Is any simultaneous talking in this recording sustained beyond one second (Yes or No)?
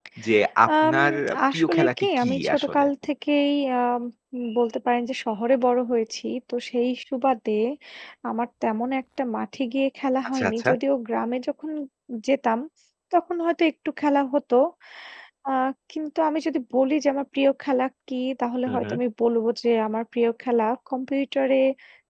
Yes